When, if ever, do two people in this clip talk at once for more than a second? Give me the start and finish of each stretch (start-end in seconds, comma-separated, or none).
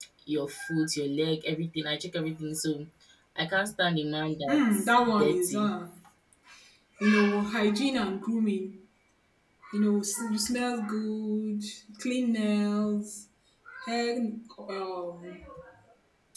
4.5-5.7